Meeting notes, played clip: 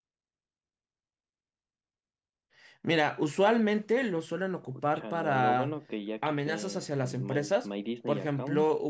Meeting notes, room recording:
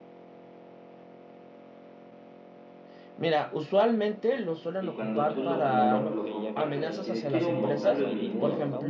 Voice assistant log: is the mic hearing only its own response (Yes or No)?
No